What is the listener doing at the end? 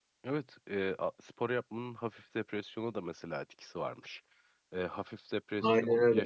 listening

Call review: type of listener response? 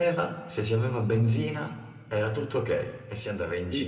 taking over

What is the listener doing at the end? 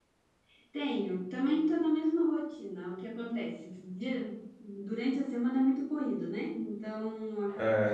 listening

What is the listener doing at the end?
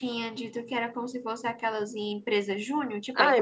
taking over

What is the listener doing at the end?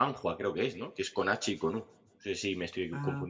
listening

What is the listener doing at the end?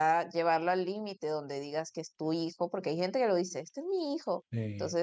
listening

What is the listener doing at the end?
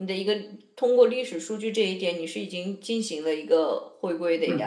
taking over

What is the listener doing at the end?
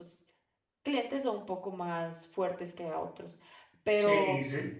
taking over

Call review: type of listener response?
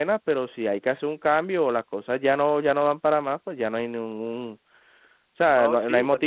taking over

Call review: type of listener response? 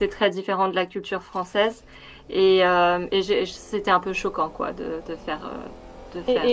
taking over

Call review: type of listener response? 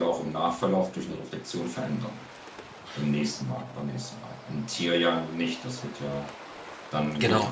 listening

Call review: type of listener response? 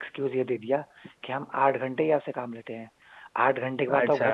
listening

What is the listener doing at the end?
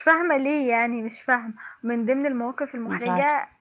listening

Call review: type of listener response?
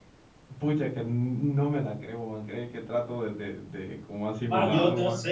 taking over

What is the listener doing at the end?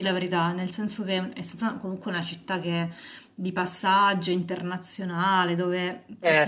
listening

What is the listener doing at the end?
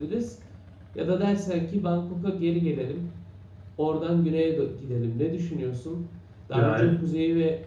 listening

